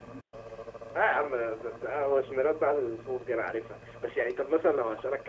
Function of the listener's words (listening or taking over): listening